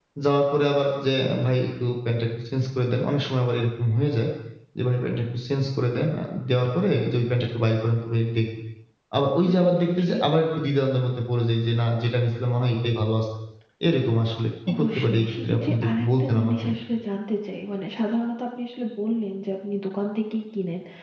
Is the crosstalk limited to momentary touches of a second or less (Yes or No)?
No